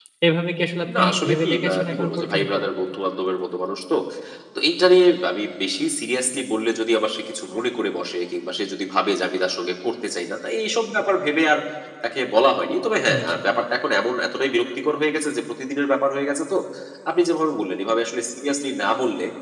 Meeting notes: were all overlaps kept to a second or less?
No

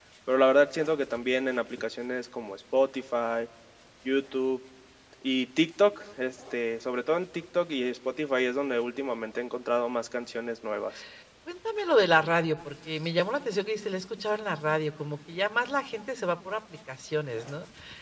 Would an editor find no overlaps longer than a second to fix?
Yes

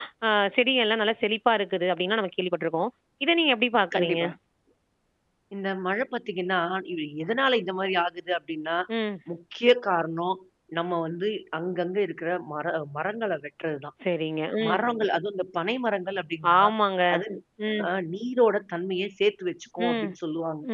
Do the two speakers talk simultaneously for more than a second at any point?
No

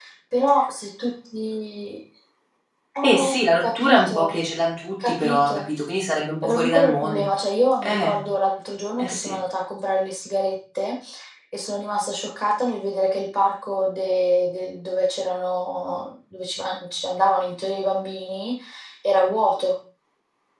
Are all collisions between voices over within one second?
No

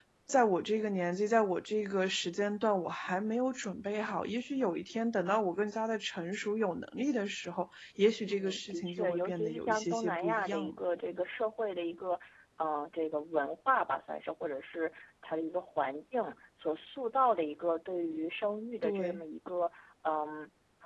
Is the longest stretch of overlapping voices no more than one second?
No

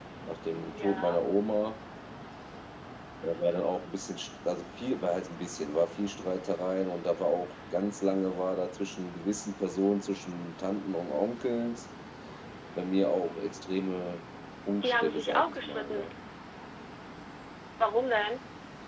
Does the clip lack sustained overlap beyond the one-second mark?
No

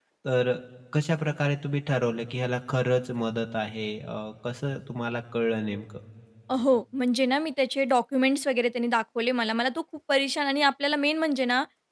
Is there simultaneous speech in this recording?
No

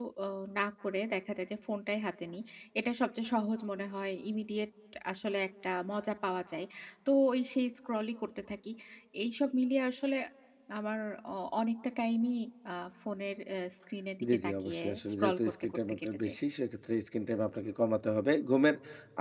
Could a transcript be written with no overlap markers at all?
No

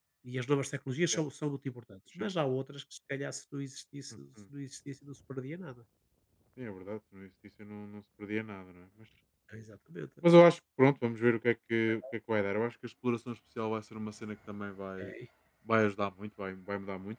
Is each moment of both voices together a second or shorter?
Yes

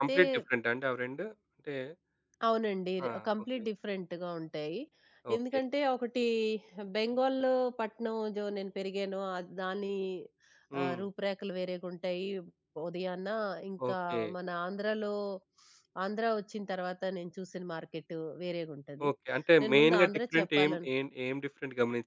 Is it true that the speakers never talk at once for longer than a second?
No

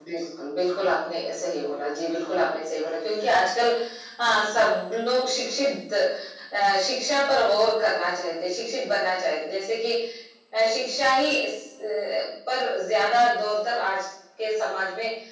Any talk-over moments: No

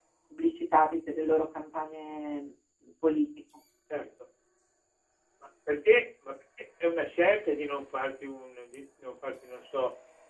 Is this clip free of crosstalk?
Yes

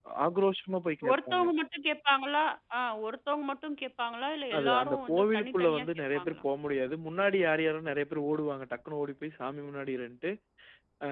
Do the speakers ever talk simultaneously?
Yes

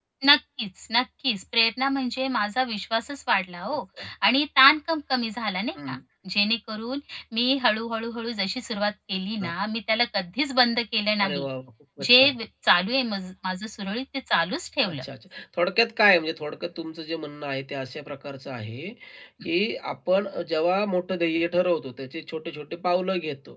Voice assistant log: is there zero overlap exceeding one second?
Yes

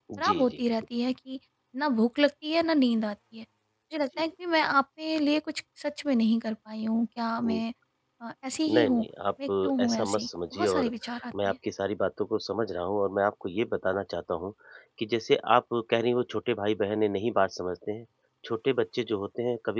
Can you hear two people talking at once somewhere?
Yes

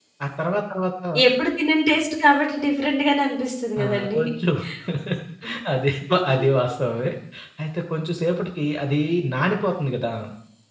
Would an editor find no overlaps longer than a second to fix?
Yes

